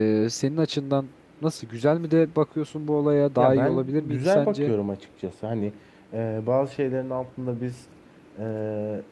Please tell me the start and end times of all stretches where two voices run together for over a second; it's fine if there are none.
3.4-4.7

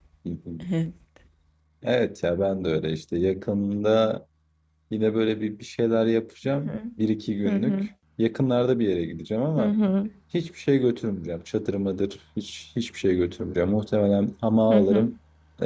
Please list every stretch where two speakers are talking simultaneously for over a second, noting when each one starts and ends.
none

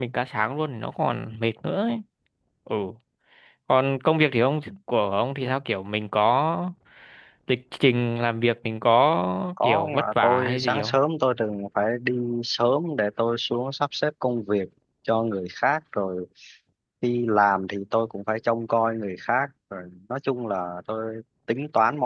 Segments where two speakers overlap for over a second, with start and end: 9.6-11.0

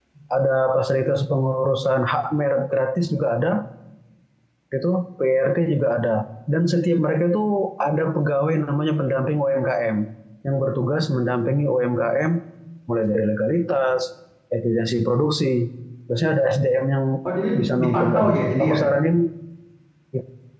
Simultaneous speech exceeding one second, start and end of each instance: 17.6-18.8

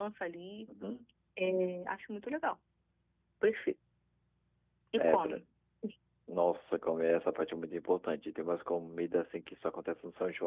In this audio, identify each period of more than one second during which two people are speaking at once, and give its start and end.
none

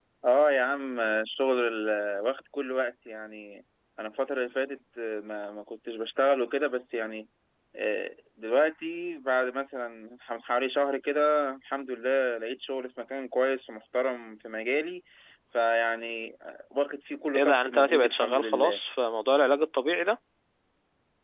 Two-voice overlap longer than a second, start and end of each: 17.3-18.8

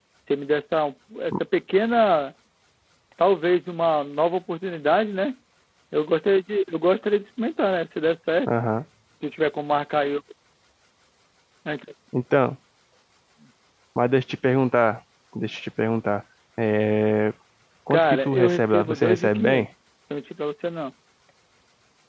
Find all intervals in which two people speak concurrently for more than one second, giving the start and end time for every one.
17.9-19.7

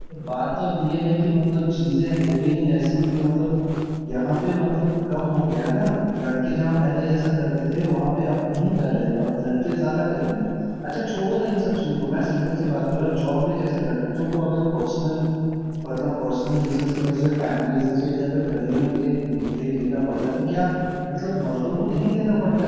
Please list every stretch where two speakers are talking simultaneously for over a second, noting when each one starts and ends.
none

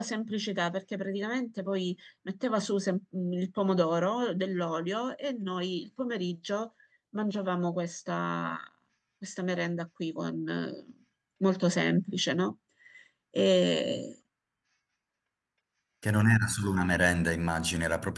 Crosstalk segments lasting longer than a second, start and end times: none

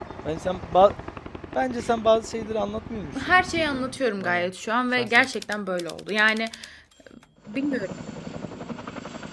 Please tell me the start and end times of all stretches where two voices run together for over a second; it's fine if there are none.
3.2-4.5

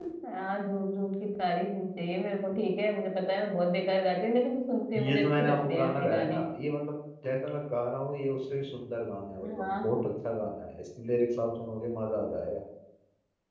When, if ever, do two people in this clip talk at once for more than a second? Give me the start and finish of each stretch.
5.0-6.4

